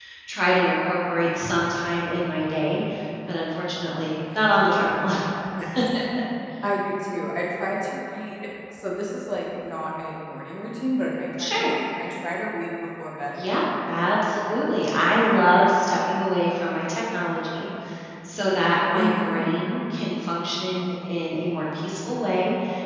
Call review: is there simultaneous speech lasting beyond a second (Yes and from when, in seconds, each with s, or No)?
No